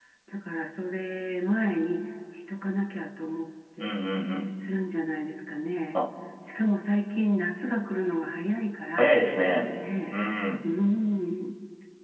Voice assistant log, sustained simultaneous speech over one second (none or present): none